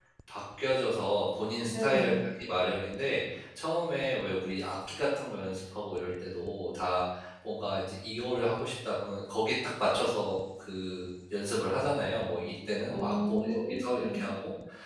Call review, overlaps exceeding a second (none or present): present